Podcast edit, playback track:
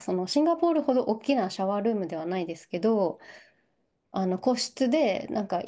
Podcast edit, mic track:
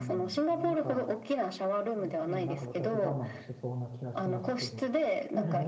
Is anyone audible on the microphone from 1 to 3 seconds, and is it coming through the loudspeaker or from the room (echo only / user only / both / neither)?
both